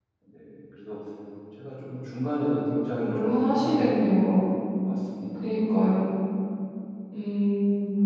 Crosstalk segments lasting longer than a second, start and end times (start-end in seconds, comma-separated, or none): 3.0-4.3